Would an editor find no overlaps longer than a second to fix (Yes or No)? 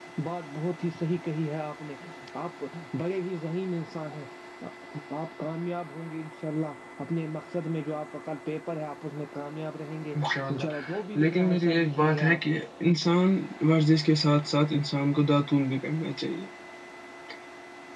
No